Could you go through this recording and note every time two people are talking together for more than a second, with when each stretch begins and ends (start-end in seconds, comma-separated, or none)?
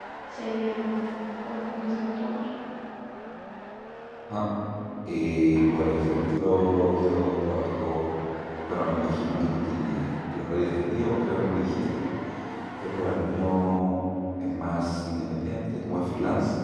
none